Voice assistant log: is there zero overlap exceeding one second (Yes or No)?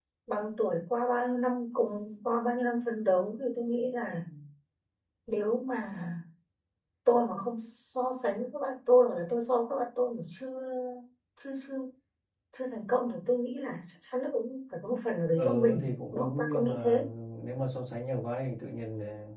No